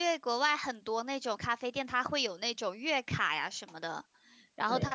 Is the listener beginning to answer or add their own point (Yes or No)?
No